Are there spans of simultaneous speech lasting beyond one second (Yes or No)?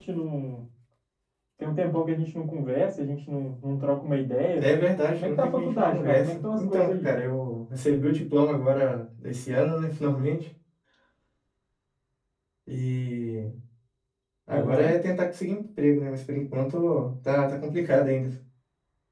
Yes